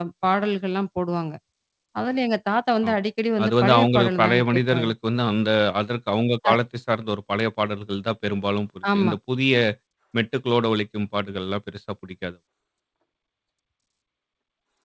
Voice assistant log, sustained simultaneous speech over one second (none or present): present